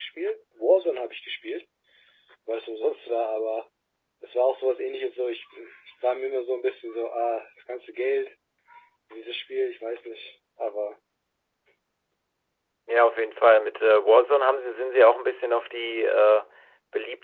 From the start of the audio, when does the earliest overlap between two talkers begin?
none

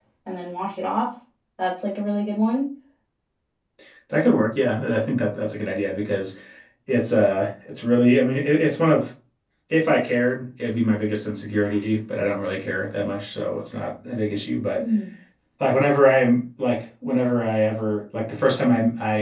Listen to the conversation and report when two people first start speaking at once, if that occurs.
none

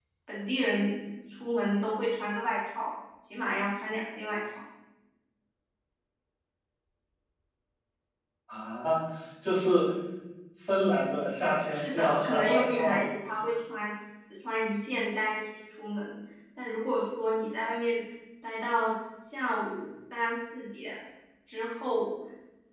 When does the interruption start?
11.7 s

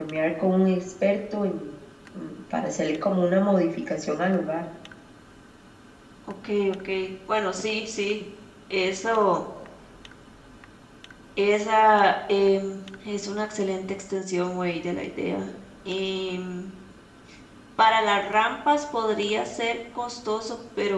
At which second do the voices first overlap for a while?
none

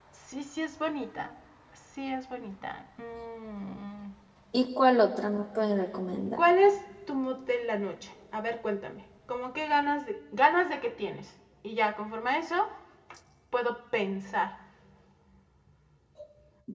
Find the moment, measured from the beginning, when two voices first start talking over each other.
none

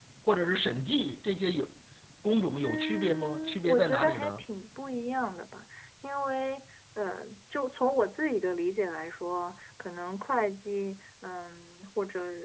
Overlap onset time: 2.6 s

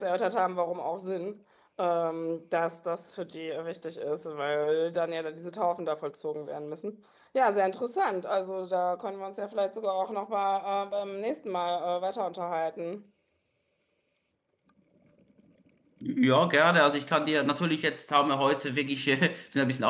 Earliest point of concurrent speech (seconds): none

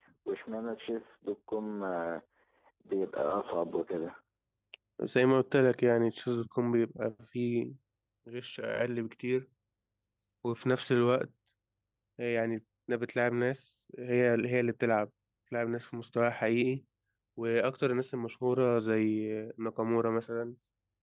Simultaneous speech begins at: none

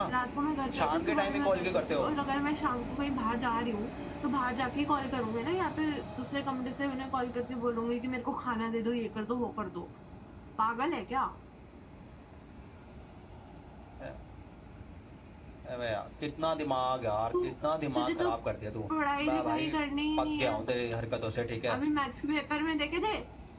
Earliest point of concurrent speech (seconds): 0.8 s

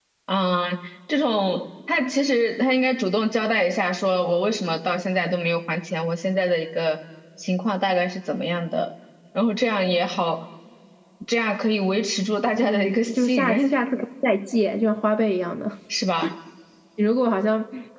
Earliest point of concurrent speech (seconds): 12.6 s

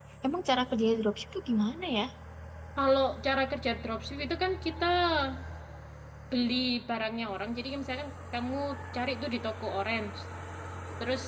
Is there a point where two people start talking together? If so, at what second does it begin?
none

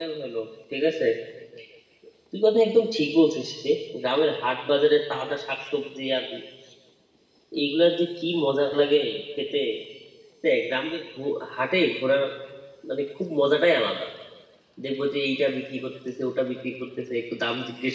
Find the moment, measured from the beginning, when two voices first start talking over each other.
none

